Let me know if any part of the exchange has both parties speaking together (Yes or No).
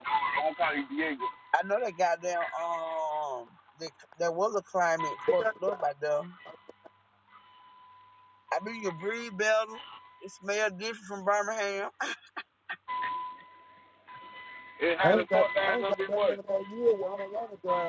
Yes